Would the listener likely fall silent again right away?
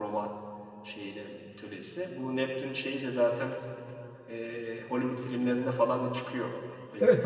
No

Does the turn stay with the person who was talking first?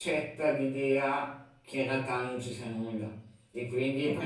Yes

